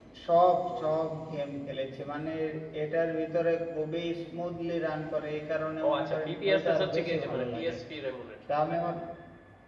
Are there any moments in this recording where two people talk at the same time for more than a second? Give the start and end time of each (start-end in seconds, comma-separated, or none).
5.8-7.8